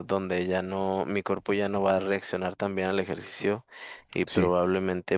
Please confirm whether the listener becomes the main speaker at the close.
No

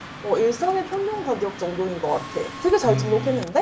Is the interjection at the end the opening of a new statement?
Yes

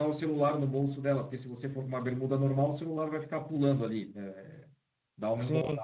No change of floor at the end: Yes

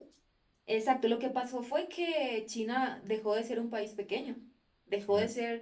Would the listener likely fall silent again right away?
No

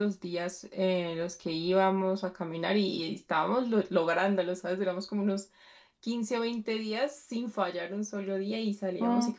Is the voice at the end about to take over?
No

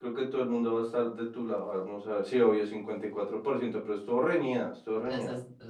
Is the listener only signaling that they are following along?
No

